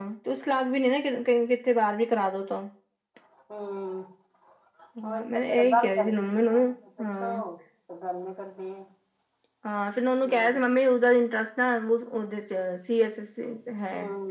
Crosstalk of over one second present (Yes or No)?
Yes